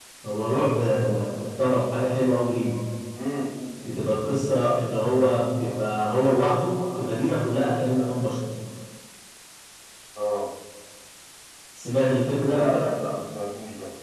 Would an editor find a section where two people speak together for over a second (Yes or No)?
No